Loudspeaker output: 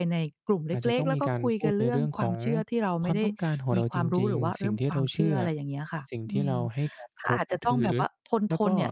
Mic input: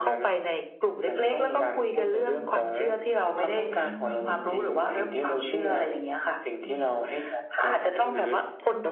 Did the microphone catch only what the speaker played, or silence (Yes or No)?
No